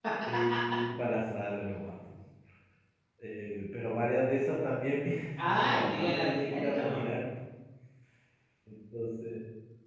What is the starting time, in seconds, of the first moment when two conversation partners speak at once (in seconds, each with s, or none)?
5.4 s